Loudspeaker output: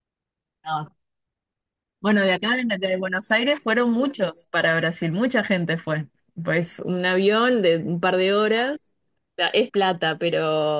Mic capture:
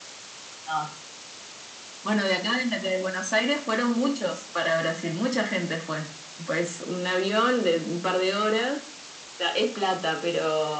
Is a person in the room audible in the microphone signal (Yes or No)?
No